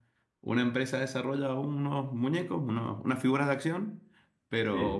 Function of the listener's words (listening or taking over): listening